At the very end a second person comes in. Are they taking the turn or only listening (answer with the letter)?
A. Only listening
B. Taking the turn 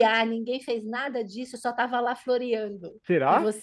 A